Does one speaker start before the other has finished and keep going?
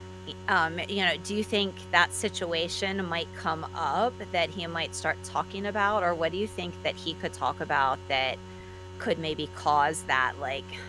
No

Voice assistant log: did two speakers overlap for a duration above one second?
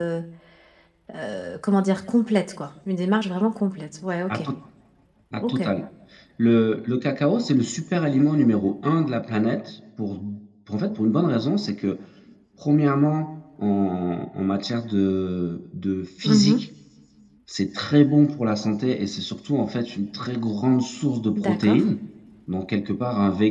No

